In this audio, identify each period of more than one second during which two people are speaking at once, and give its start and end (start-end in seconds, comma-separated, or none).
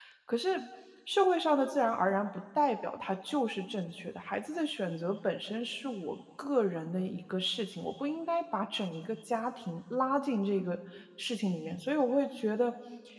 none